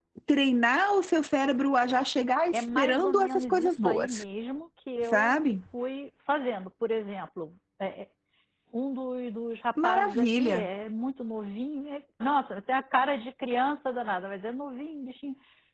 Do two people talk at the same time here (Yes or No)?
Yes